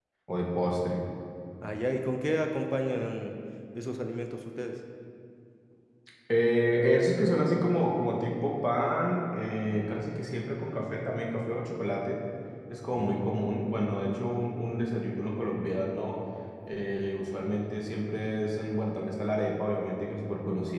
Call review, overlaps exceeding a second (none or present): none